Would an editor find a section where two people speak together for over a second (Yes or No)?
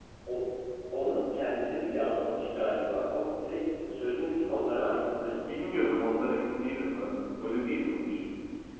No